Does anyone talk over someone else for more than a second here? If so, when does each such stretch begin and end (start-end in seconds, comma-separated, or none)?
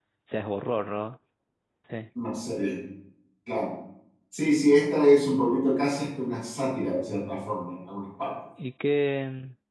none